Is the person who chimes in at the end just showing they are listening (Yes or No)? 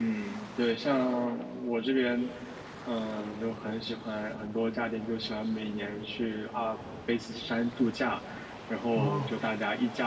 Yes